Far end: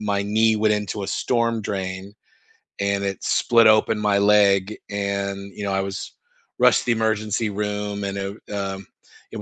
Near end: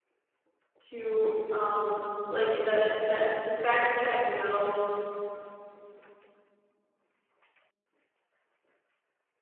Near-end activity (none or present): present